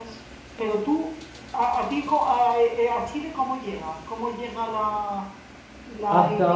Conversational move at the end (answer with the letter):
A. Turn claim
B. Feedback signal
A